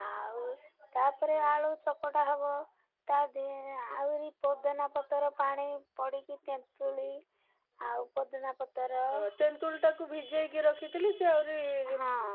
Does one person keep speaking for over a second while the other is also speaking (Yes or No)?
No